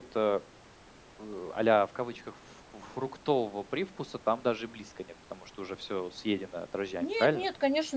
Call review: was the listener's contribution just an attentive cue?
No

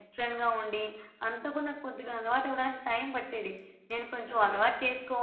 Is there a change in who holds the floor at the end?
No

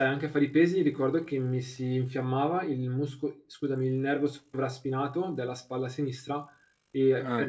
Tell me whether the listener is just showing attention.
Yes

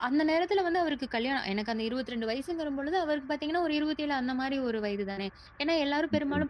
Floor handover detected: No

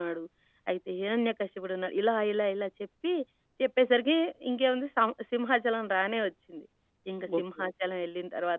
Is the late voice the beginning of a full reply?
No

